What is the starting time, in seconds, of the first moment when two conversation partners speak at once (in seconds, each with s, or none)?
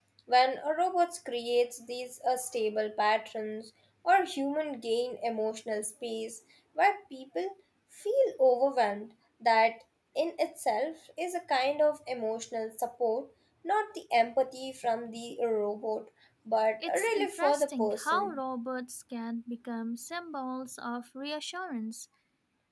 16.8 s